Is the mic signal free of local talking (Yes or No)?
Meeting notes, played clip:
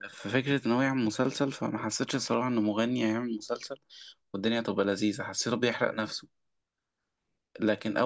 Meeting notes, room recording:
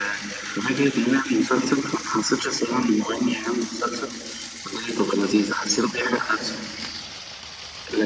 Yes